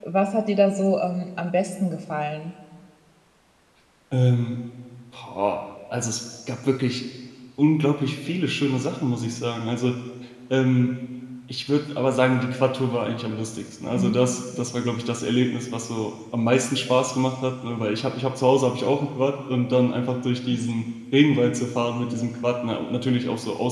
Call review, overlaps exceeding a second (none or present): none